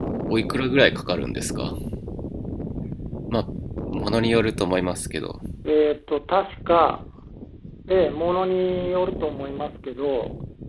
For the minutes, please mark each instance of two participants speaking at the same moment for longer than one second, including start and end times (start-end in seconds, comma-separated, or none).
none